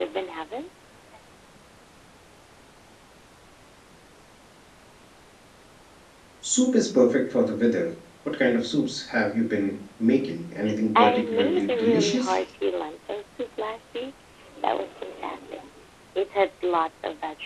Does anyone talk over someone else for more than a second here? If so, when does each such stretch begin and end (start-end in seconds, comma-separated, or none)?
11.0-12.4